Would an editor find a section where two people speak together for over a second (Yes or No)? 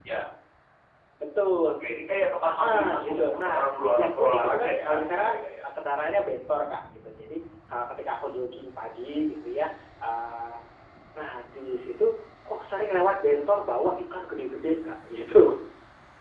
Yes